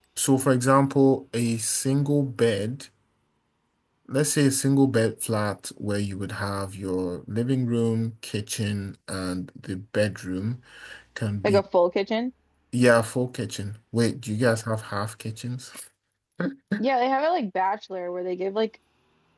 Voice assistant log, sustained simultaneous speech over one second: none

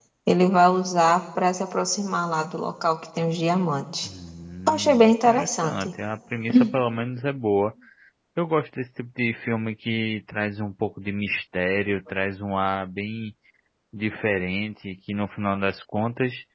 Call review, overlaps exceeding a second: present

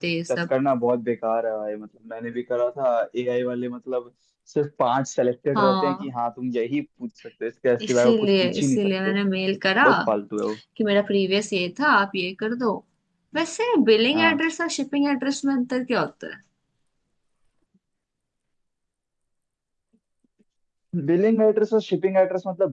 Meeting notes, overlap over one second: present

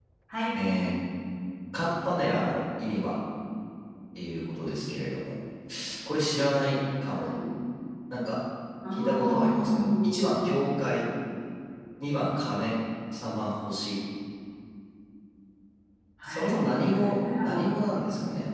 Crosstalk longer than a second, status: present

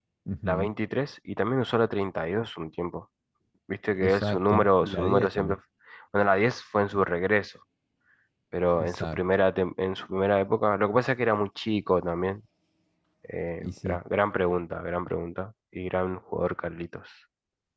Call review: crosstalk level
present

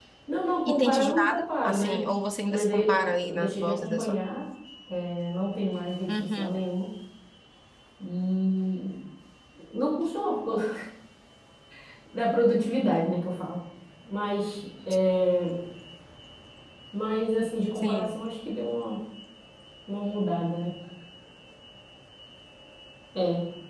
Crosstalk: present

